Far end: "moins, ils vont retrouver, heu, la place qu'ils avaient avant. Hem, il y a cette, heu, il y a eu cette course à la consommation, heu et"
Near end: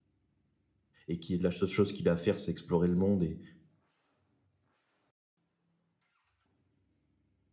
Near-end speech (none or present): present